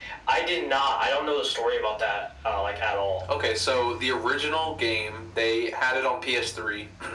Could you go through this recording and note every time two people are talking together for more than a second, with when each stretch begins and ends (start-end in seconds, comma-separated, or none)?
none